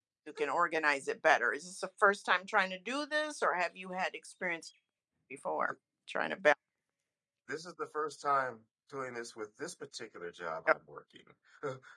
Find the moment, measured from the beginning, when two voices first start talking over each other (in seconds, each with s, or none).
none